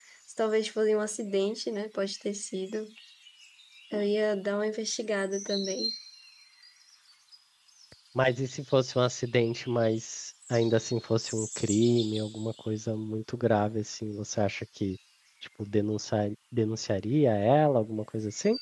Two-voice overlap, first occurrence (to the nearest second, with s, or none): none